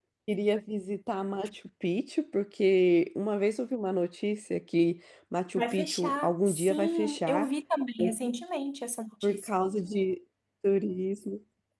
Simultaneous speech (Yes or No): Yes